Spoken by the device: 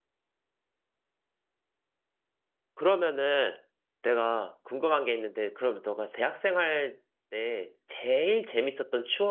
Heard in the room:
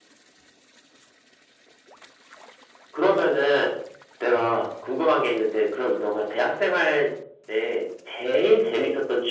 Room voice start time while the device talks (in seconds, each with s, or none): none